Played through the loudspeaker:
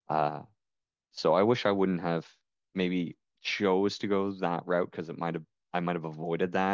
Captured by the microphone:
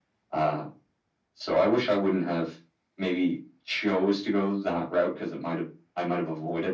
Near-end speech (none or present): none